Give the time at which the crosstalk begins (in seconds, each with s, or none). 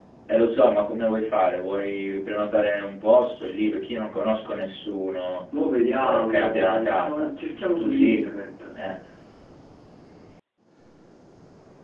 6.0 s